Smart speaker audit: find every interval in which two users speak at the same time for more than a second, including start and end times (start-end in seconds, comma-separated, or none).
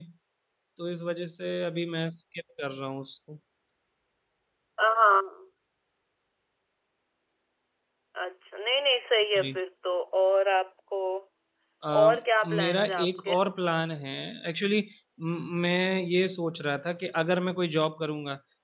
12.0-13.3